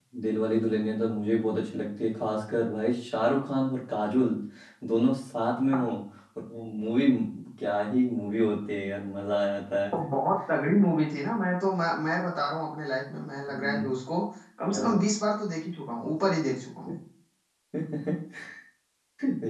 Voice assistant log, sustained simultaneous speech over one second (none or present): none